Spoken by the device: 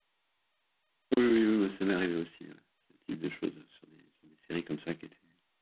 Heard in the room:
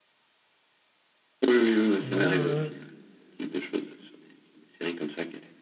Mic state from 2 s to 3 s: both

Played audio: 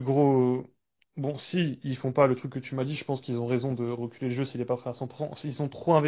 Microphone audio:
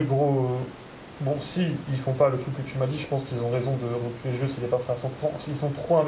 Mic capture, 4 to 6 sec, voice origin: echo only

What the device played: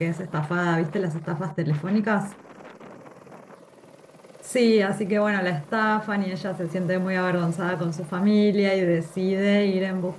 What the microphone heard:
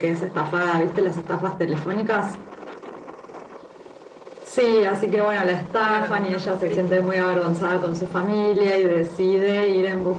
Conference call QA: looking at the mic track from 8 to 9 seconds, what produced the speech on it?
echo only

